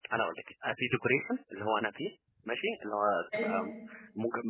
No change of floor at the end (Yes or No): Yes